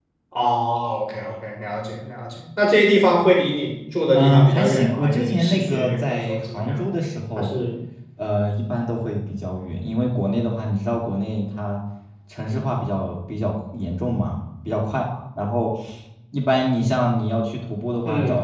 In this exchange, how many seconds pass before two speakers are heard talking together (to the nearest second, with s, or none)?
4 s